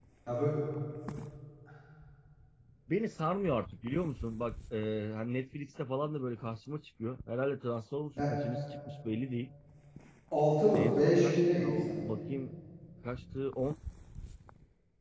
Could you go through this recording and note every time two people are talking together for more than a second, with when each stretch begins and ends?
10.8-12.0

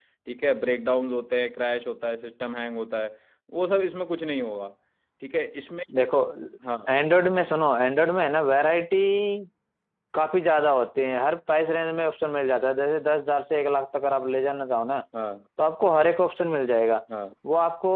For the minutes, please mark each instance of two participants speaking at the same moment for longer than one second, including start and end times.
none

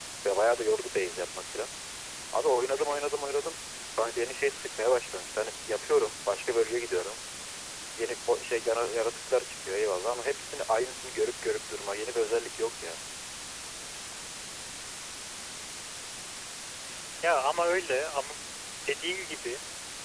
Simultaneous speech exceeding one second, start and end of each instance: none

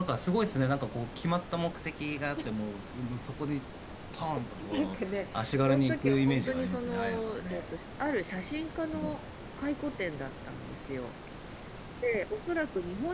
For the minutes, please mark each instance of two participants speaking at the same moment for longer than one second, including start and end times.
4.7-7.7

